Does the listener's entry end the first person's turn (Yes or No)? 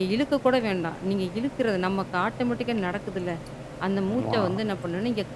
No